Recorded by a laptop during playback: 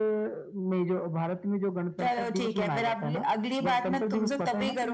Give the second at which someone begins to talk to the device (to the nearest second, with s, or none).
none